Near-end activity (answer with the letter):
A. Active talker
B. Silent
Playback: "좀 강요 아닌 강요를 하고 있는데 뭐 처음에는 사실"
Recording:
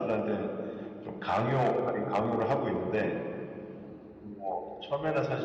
B